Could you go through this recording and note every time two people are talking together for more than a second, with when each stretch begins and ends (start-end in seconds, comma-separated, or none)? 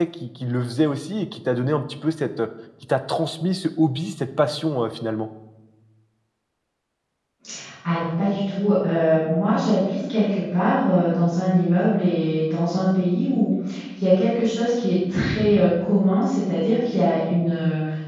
none